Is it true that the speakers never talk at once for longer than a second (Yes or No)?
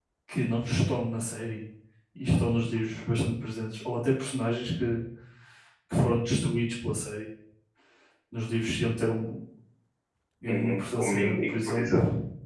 No